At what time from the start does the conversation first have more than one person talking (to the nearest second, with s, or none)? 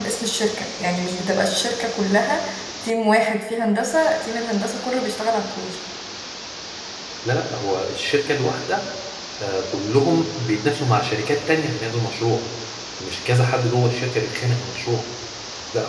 none